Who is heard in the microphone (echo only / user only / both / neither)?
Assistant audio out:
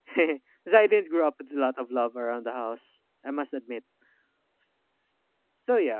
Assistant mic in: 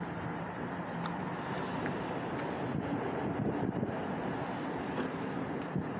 neither